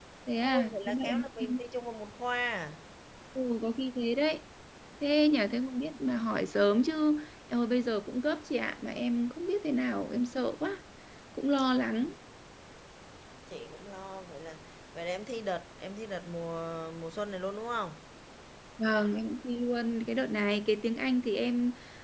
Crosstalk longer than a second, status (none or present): present